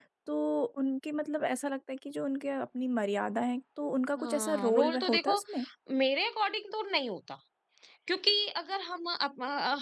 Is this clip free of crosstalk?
No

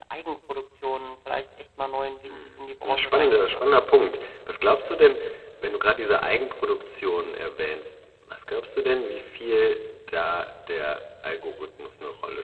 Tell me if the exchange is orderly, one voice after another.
No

